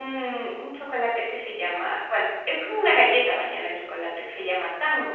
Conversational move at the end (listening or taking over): listening